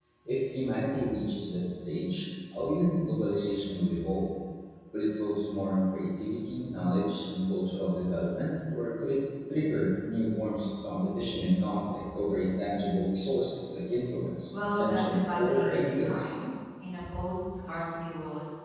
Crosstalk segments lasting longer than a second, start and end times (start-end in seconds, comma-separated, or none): 14.5-16.3